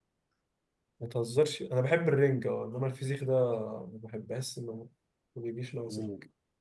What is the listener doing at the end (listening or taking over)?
taking over